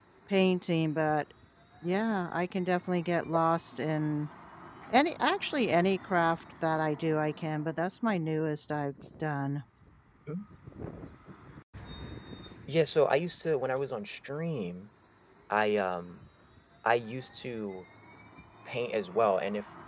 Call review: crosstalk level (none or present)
none